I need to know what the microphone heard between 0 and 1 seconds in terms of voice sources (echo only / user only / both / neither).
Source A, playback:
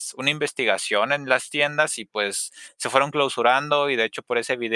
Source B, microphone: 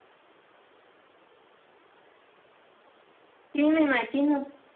neither